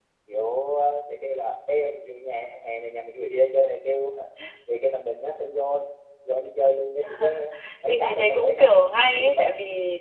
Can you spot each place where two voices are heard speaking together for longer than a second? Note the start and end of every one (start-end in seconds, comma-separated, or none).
7.9-9.5